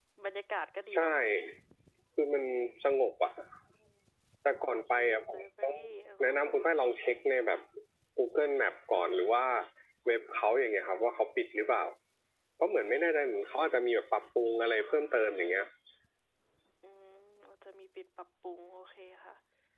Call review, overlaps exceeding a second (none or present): none